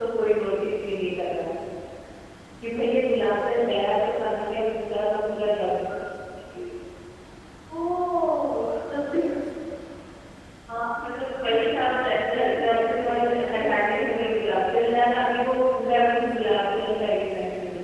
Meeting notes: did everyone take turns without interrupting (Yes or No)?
No